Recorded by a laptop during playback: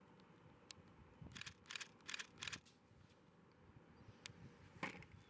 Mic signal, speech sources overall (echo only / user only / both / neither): neither